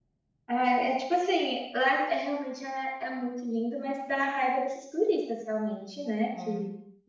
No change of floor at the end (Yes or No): Yes